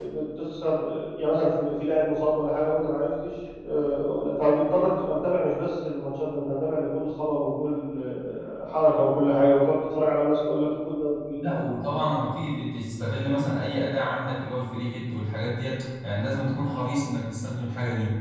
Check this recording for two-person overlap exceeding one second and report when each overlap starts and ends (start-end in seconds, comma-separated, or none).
none